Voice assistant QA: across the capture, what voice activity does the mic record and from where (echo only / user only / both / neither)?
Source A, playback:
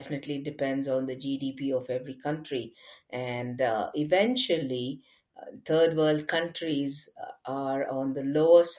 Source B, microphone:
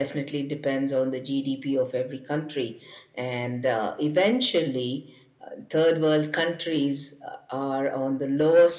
echo only